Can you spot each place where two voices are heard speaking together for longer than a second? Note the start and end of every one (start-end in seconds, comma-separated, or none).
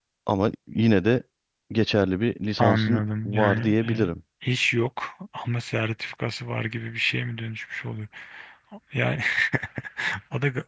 2.6-4.1